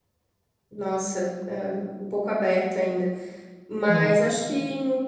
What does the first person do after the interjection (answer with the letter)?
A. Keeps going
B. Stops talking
A